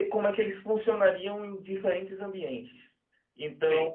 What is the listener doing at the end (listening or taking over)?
listening